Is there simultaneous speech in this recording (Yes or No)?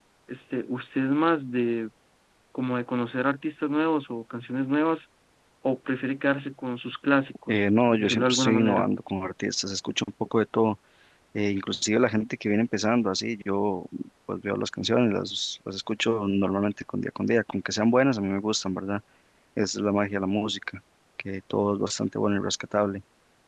Yes